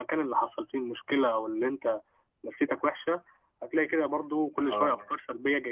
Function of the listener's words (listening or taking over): listening